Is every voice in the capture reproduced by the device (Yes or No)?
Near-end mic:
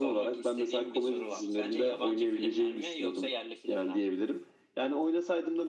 Yes